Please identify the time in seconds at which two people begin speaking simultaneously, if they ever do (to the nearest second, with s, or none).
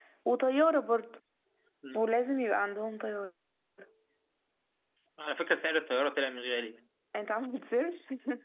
none